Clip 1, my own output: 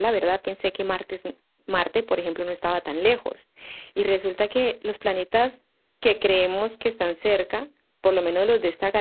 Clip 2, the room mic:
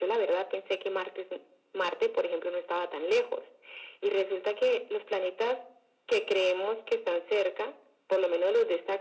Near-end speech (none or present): none